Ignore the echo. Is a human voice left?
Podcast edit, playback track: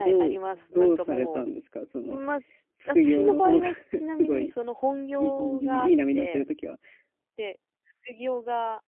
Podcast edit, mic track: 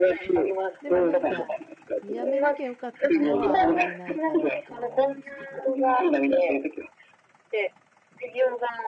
Yes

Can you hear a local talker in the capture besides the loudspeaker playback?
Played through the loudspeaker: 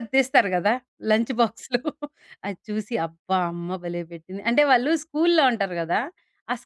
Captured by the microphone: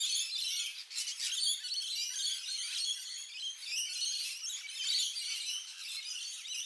No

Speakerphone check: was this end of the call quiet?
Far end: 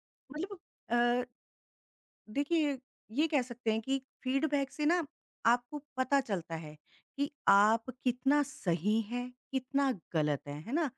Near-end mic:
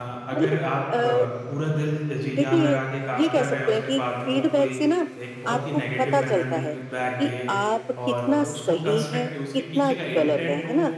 No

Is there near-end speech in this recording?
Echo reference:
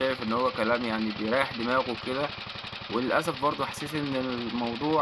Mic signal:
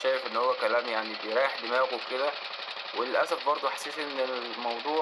No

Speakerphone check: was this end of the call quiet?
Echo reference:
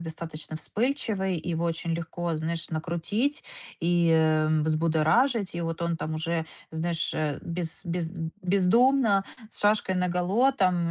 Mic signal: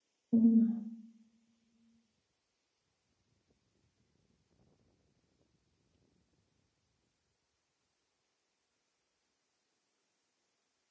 No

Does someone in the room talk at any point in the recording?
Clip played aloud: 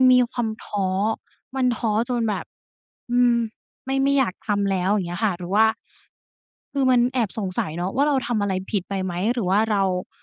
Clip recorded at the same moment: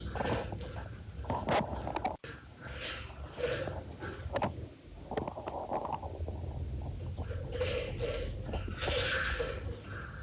No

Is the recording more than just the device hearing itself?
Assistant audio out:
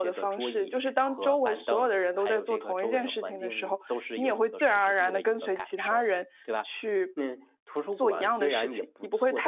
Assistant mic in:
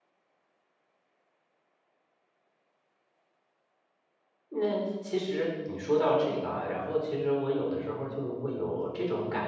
Yes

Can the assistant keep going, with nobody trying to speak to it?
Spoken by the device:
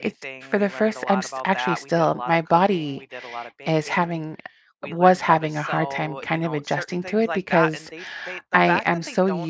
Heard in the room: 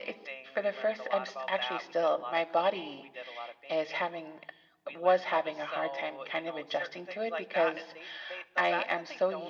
Yes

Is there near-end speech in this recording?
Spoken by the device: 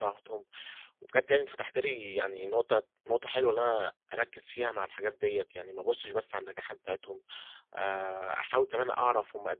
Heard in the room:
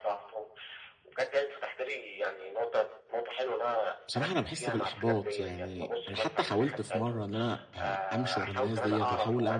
Yes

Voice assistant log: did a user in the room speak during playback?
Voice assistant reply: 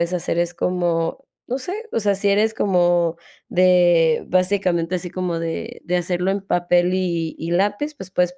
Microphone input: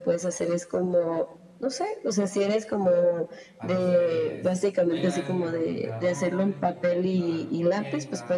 Yes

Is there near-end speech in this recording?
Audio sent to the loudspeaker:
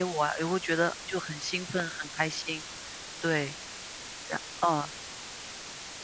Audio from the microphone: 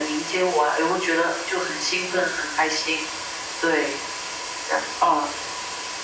No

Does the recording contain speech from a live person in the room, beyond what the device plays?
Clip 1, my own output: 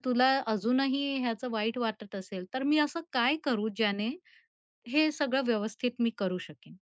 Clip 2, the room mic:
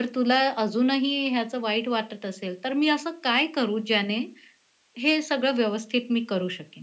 No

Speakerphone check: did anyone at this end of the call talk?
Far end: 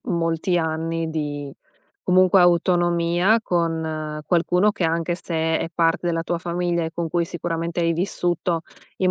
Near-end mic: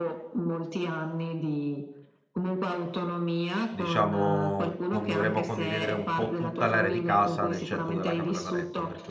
Yes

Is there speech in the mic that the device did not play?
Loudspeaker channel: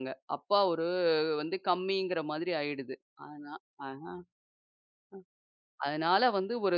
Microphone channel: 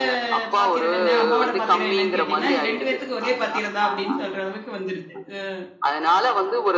Yes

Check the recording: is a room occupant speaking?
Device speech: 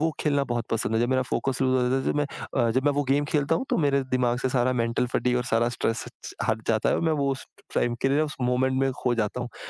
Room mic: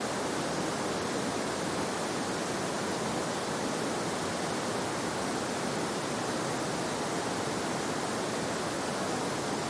No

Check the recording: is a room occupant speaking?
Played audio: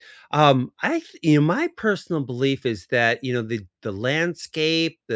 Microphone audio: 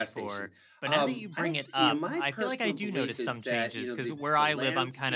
Yes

